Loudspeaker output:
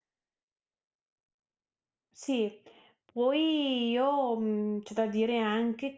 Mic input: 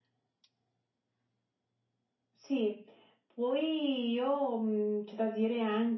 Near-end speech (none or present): none